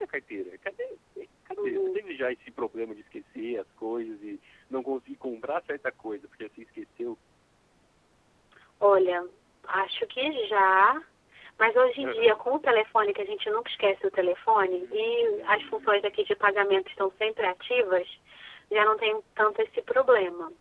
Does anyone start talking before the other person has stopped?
Yes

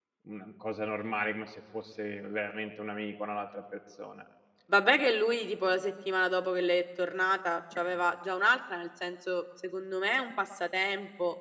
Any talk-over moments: No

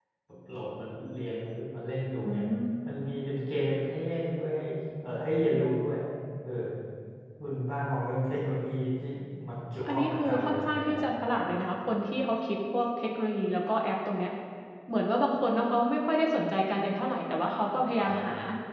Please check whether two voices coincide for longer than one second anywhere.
Yes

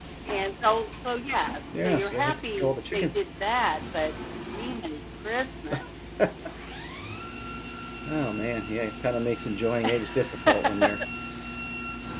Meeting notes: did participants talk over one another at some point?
Yes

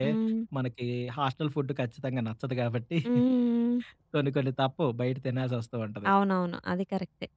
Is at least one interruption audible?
No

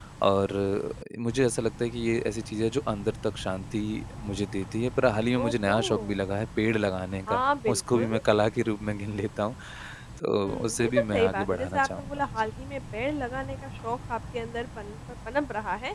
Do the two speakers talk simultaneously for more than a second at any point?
Yes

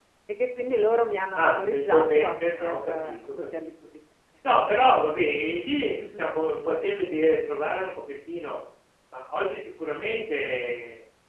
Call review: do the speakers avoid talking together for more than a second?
No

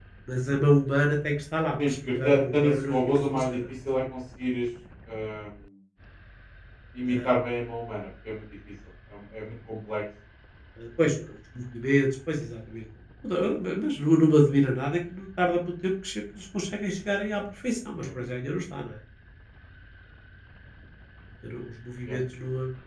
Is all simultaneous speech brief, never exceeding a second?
No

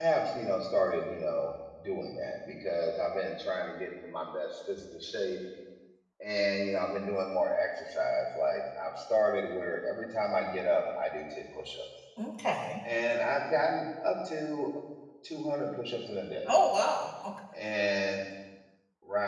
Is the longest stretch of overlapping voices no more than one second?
Yes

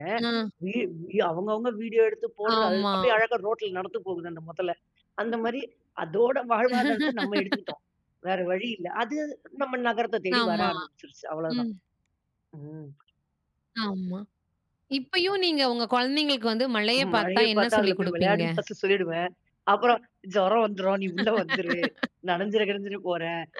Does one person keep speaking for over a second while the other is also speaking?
Yes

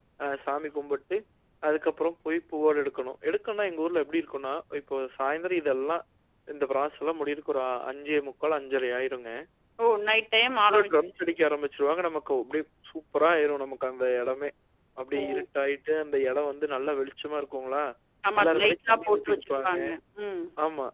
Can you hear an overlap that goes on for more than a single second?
Yes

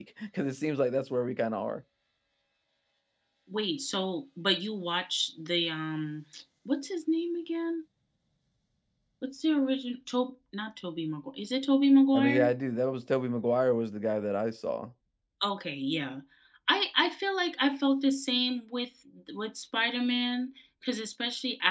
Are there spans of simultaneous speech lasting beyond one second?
No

